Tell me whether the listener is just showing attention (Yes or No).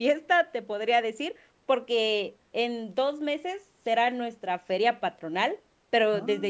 Yes